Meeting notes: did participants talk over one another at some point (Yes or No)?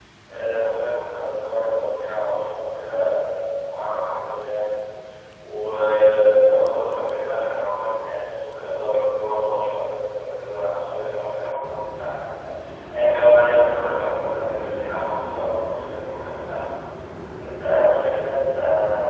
No